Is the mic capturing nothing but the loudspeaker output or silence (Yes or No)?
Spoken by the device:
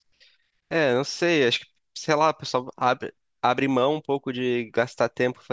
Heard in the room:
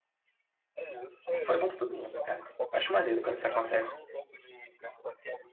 No